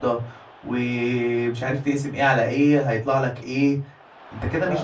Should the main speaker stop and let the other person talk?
No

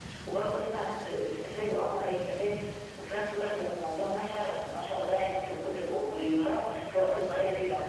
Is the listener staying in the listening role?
No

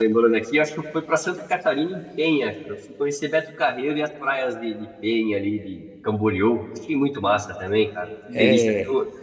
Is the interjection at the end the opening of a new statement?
No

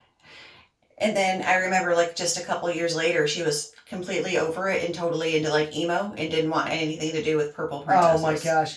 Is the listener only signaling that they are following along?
No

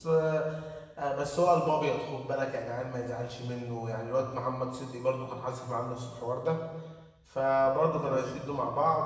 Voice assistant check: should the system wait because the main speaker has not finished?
Yes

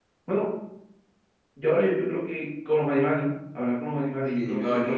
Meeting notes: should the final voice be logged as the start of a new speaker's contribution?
Yes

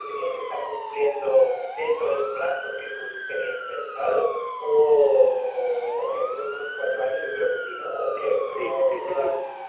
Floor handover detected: Yes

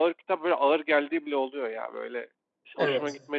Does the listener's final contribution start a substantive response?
No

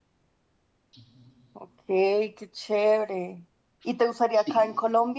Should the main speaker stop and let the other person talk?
No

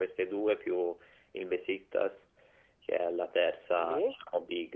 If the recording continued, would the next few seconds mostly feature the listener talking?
No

